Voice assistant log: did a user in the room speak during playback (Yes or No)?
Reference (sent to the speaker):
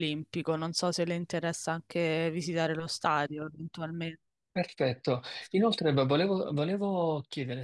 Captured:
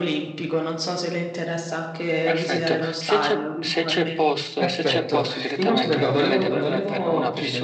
Yes